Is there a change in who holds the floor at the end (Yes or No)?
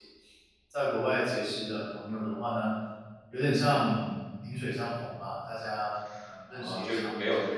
Yes